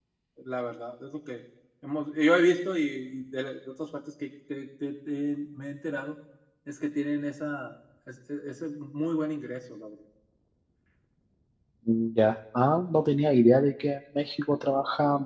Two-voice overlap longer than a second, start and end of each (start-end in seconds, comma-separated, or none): none